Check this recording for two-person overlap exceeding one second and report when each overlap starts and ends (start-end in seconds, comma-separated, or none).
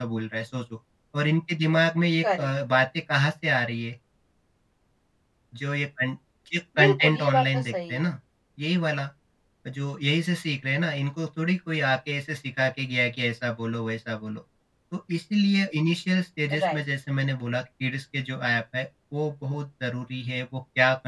6.8-8.1